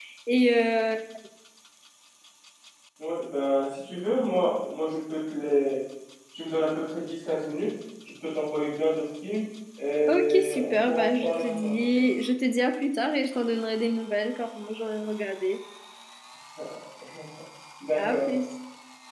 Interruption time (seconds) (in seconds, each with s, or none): 10.1 s